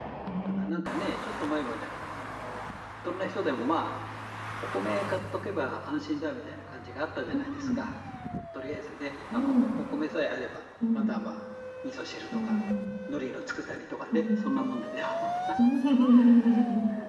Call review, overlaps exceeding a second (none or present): none